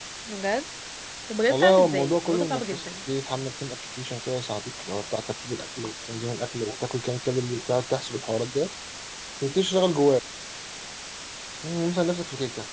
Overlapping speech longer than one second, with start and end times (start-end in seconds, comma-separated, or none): 1.5-2.9